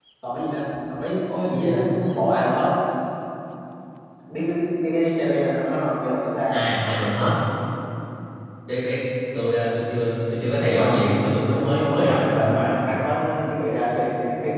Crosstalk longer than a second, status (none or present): present